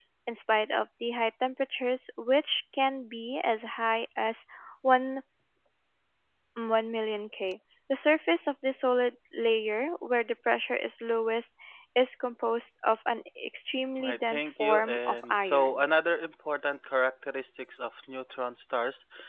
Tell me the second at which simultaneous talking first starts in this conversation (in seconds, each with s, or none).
14.0 s